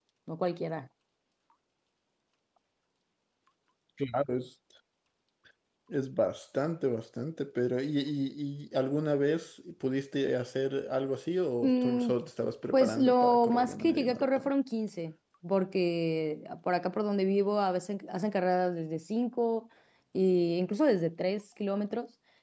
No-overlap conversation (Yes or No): No